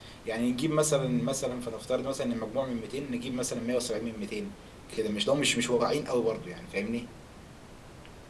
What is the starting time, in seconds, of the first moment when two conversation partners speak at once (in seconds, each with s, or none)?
none